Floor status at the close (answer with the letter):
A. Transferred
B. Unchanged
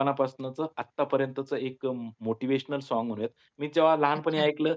B